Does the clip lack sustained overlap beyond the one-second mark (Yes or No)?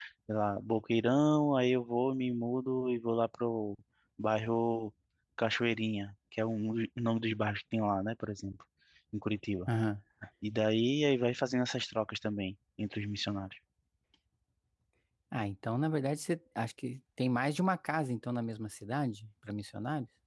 Yes